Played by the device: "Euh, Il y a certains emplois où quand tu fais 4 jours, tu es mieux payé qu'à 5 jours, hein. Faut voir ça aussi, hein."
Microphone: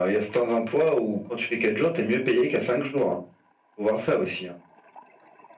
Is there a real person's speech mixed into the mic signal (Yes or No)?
No